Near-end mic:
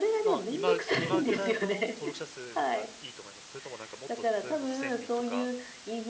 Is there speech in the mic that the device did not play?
Yes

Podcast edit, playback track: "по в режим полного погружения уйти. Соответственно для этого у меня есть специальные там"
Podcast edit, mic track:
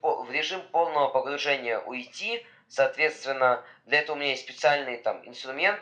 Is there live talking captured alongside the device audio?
No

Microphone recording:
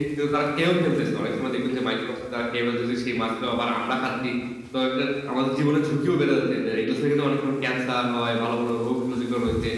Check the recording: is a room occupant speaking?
No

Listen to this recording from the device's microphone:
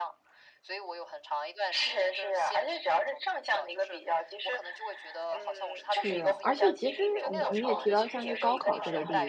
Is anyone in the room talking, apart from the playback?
Yes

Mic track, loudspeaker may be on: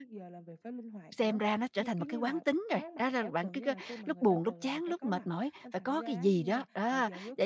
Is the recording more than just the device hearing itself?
Yes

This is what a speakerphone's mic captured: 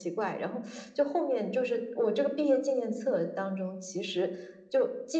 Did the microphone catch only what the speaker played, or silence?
Yes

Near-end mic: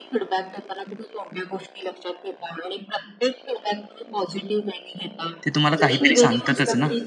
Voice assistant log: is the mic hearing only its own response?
No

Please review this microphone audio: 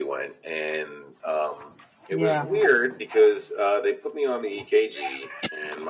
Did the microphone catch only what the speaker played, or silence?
No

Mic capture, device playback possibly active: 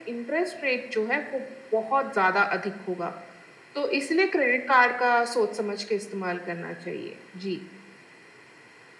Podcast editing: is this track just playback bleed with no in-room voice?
Yes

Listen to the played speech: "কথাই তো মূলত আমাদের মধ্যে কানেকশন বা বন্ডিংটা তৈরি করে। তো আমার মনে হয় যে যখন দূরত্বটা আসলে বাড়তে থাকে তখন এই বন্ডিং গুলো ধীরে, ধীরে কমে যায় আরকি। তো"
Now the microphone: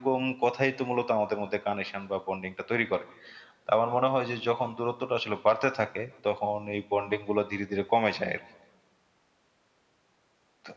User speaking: No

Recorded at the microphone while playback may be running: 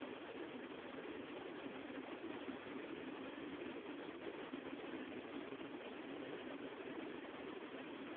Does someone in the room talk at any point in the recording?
No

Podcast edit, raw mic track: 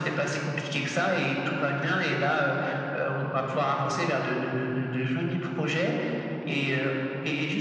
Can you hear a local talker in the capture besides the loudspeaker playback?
No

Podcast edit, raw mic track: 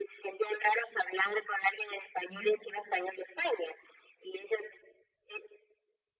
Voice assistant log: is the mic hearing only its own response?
No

